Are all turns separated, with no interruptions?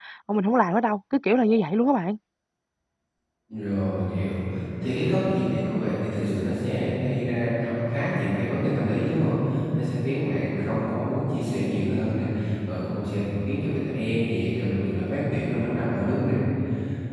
Yes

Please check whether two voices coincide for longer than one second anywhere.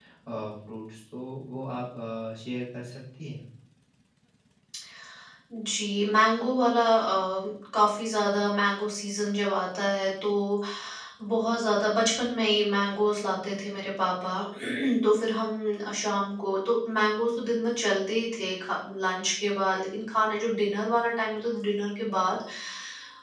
No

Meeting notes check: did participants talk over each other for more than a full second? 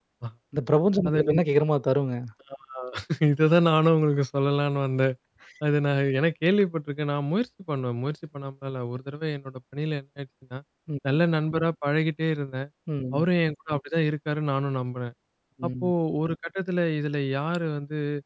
No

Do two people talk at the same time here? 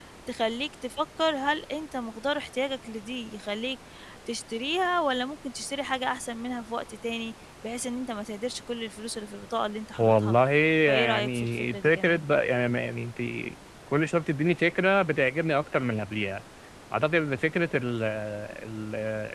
Yes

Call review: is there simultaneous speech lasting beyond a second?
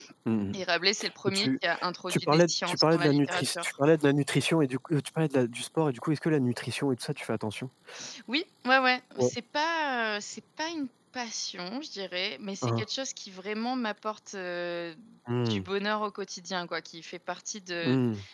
Yes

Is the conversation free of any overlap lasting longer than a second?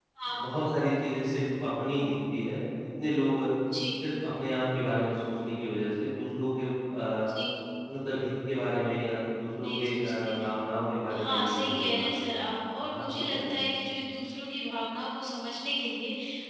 No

